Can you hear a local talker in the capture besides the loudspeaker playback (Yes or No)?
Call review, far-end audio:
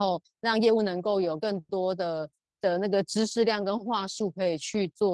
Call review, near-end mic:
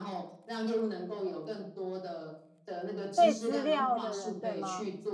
Yes